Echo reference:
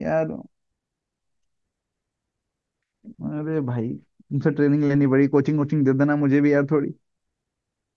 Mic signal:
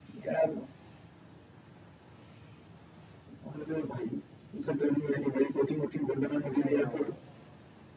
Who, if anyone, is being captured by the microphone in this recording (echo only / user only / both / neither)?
both